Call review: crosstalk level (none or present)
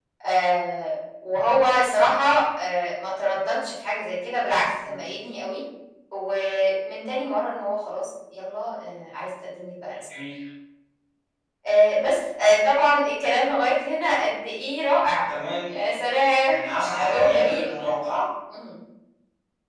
present